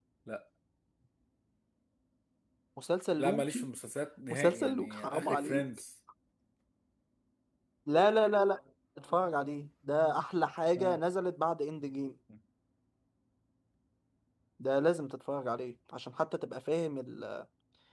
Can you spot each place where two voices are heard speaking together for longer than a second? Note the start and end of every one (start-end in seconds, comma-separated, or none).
4.3-5.7